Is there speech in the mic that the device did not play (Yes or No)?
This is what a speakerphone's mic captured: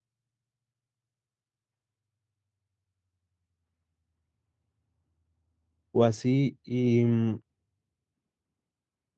Yes